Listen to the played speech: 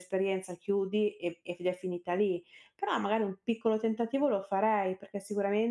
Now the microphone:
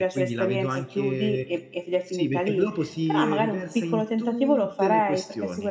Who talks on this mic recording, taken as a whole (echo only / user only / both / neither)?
both